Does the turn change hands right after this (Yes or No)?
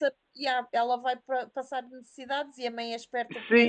Yes